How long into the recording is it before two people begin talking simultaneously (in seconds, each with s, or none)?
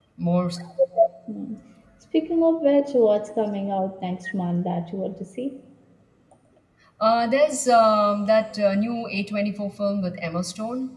none